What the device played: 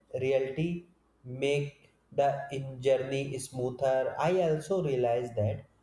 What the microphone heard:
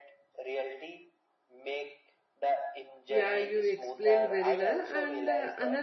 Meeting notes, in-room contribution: present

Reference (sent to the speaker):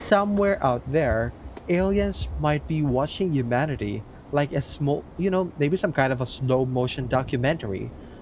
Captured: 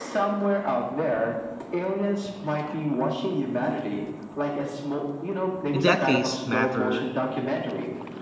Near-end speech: present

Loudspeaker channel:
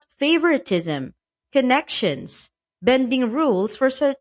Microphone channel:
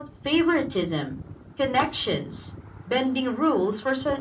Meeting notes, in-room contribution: none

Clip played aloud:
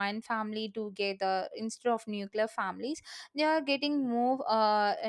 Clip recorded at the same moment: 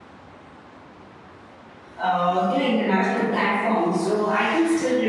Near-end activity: present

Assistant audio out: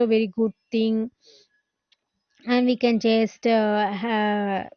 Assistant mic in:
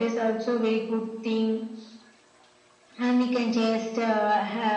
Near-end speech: none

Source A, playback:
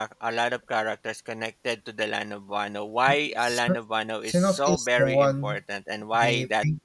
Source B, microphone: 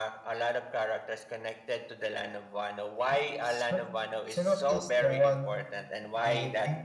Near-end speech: none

